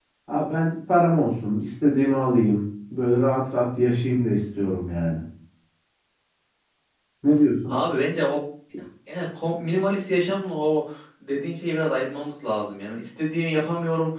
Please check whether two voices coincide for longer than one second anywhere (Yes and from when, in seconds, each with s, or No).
No